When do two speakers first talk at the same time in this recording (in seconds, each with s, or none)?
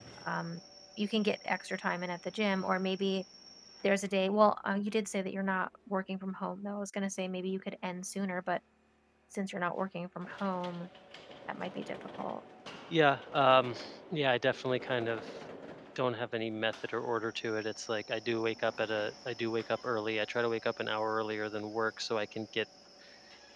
none